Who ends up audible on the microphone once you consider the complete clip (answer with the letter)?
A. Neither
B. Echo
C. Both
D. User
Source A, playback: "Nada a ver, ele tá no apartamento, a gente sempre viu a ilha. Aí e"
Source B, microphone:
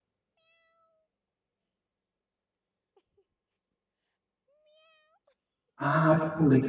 D